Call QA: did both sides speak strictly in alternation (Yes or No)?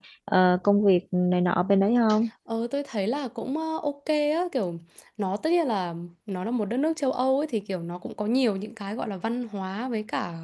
Yes